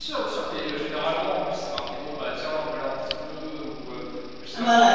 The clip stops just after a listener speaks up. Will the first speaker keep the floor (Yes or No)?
Yes